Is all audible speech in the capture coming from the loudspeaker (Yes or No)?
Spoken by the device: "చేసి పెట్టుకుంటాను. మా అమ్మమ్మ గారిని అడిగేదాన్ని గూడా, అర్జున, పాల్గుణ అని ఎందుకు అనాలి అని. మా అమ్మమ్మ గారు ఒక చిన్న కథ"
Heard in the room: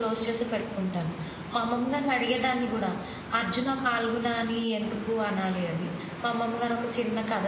Yes